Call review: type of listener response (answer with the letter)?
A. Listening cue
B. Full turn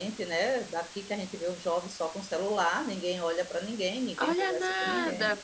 B